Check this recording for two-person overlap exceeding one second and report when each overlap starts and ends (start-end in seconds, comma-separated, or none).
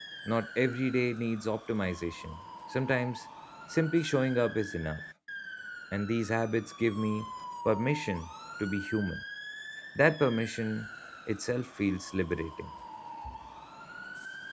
none